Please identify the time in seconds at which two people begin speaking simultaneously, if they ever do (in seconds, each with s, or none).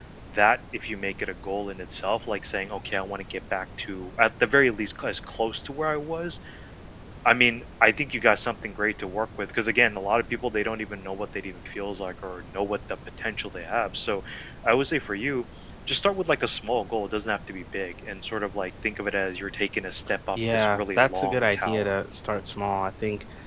20.4 s